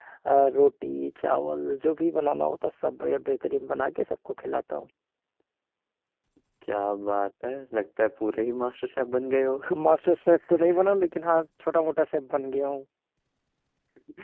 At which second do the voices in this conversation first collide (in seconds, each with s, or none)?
none